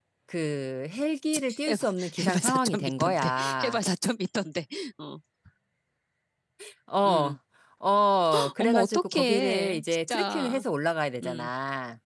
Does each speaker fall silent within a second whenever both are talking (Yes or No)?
No